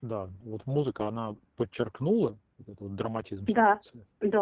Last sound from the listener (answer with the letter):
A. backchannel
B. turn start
B